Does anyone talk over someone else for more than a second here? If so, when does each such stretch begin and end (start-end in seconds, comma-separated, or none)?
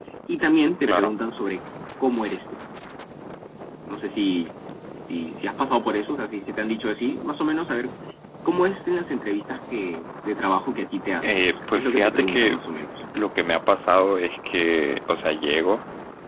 11.2-12.6